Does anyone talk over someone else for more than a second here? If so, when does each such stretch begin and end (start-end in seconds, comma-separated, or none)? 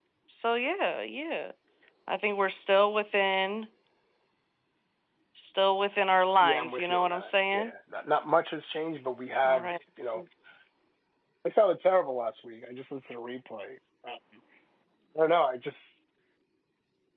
6.4-7.7